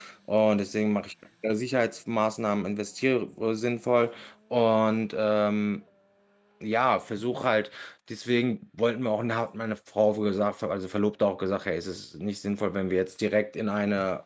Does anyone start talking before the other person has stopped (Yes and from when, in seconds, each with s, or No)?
No